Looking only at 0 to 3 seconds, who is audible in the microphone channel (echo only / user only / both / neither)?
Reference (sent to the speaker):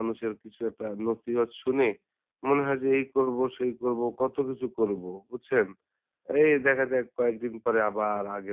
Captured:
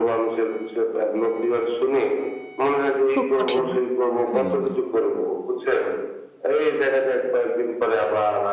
echo only